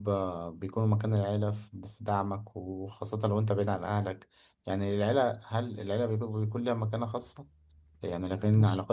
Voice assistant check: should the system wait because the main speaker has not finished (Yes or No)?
Yes